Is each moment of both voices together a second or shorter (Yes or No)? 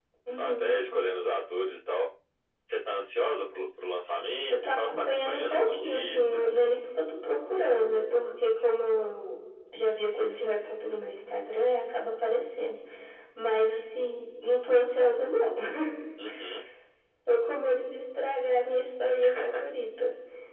No